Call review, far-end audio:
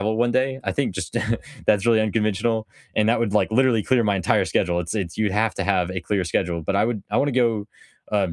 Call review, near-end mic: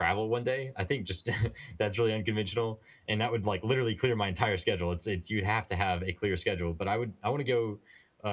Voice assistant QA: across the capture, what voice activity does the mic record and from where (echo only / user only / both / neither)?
echo only